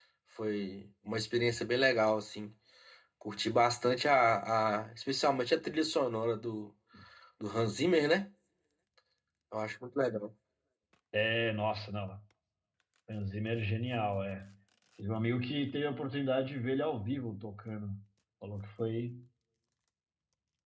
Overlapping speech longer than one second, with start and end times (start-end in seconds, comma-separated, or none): none